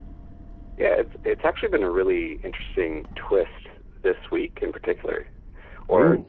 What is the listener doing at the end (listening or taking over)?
listening